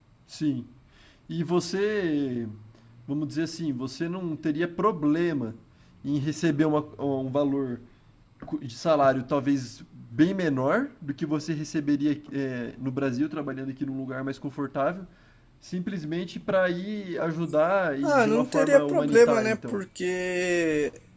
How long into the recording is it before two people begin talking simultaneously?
18 s

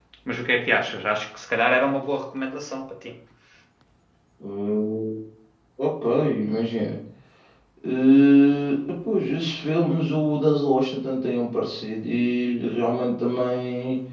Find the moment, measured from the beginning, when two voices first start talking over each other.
none

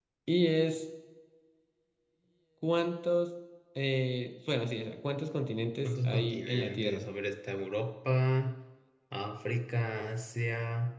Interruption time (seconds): 6 s

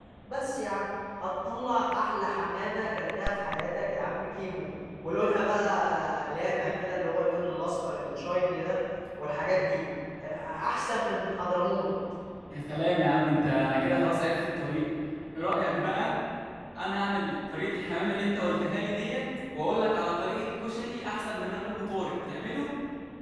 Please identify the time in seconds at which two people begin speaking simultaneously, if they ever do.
none

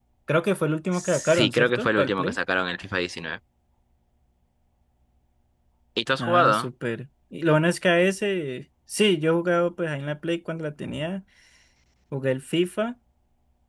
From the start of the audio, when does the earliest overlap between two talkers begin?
1 s

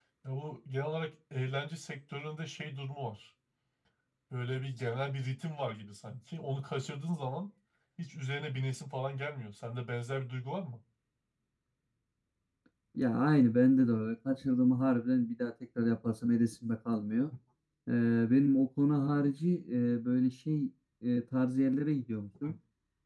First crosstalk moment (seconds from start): none

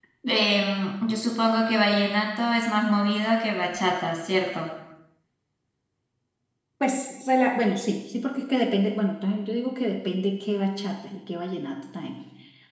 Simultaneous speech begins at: none

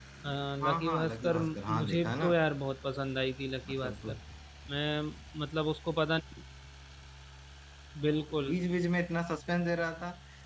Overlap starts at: 1 s

